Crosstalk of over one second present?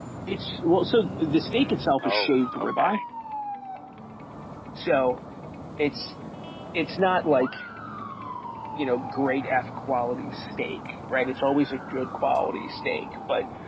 Yes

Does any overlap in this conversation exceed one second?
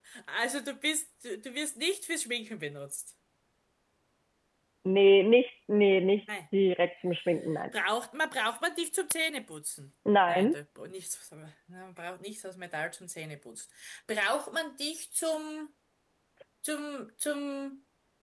No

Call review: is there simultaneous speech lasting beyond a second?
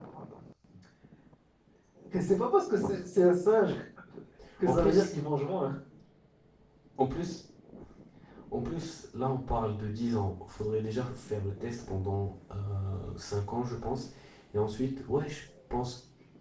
No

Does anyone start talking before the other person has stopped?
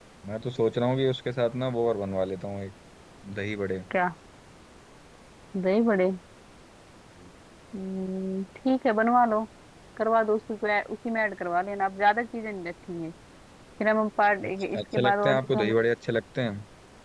Yes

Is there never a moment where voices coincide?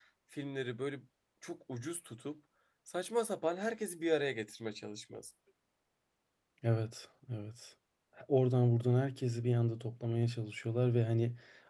Yes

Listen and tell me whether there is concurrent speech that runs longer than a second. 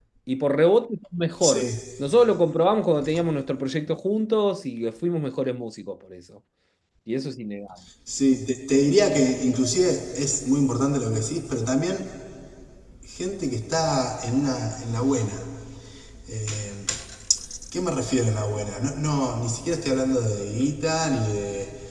No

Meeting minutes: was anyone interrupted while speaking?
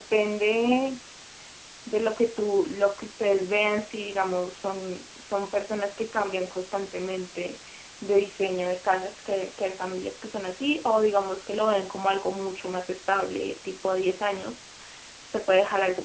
No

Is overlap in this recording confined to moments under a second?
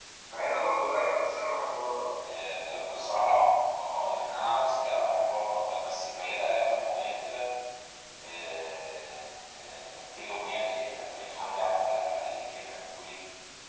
Yes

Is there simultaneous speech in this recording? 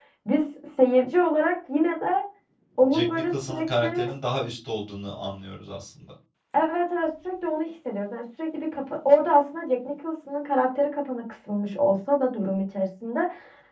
Yes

